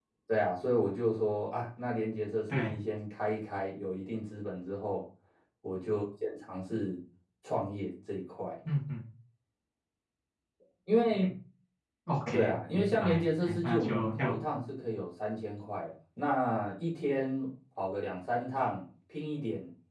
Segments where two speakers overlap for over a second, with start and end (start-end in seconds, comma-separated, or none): 12.3-14.4